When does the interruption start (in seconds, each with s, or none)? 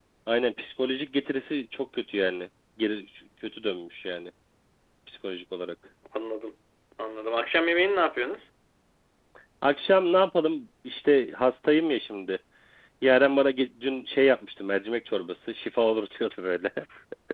none